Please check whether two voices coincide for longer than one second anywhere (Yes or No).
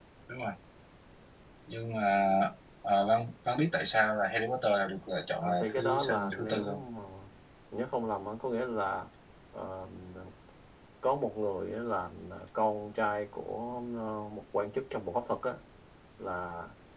Yes